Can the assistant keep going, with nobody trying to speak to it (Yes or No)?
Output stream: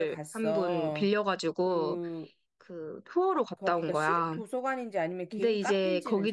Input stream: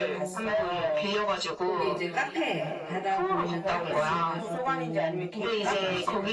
No